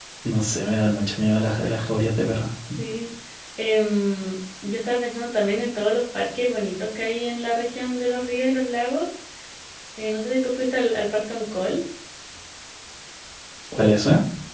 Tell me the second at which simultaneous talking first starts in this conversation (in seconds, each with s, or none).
none